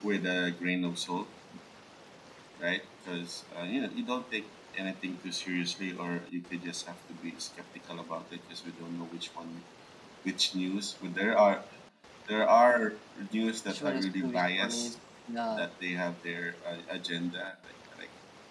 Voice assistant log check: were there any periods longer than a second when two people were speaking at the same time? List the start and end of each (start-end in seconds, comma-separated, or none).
13.7-14.9